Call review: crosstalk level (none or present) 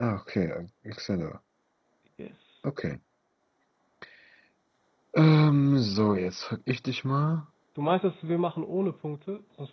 none